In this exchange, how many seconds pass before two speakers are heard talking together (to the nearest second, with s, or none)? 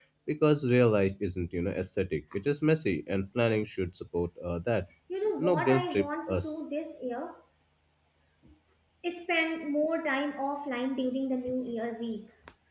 5 s